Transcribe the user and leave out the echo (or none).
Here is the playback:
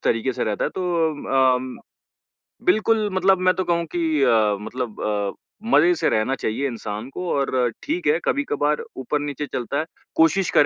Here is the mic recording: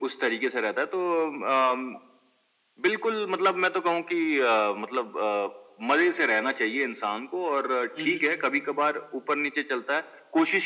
हुँ, हुँ।